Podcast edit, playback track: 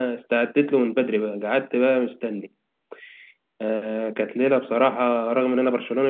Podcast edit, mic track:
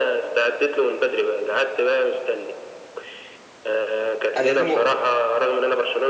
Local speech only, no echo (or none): أدي دي نقطة